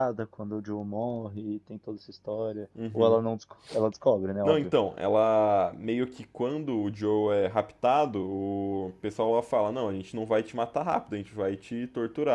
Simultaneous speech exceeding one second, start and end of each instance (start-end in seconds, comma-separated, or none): none